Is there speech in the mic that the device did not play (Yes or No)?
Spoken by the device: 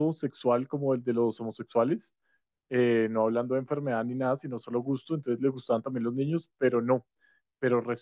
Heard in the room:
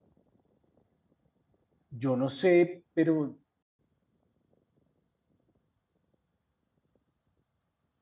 Yes